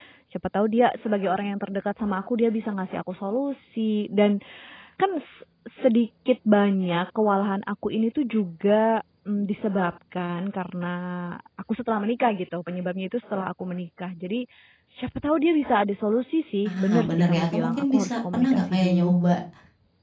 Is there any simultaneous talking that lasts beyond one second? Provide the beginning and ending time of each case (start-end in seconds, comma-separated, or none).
16.7-19.2